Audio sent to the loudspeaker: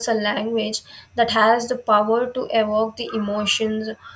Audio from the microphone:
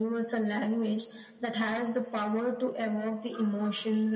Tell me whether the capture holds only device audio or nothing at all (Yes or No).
Yes